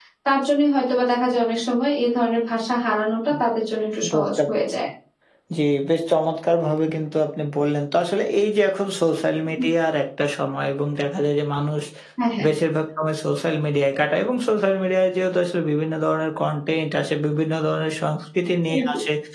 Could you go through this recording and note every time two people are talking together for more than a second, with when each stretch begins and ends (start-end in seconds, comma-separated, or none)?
none